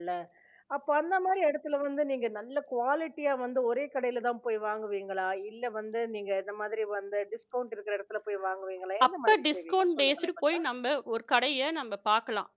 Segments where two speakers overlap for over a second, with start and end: 9.1-10.6

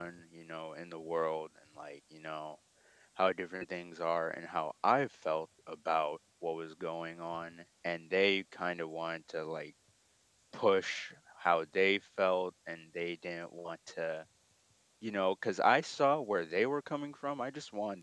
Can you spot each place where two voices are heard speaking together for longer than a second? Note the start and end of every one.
none

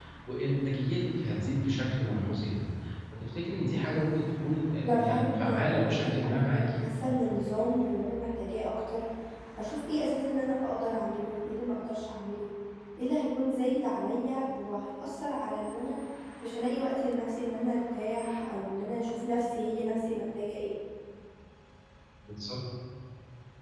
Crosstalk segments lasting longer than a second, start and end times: 4.8-6.8

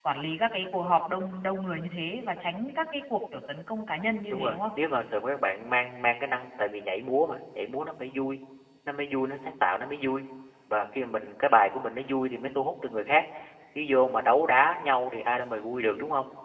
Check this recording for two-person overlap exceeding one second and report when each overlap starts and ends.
none

